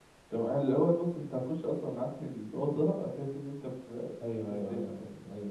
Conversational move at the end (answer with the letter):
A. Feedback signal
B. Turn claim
B